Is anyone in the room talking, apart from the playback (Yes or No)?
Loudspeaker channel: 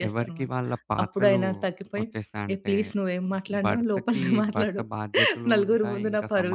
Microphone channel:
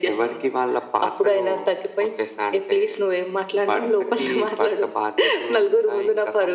No